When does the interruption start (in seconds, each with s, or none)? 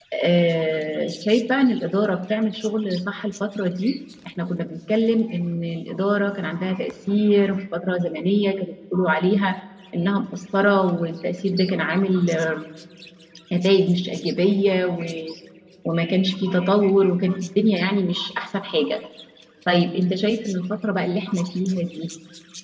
none